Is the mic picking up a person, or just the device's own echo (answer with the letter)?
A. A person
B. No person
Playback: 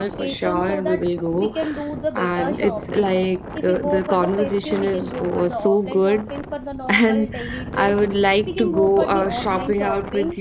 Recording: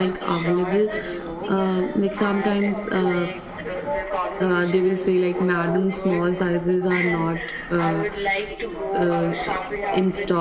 A